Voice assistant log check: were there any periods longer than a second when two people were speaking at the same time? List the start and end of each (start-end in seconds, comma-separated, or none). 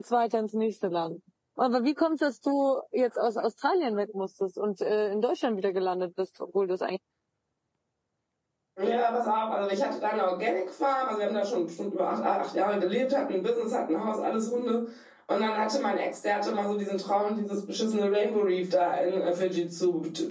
none